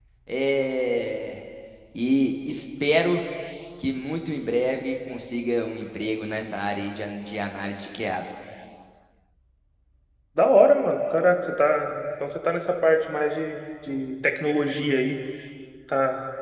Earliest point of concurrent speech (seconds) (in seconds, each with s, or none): none